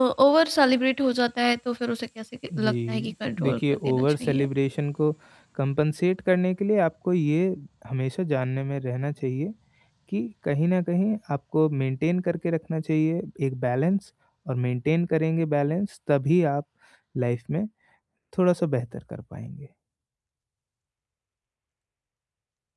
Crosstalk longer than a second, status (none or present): present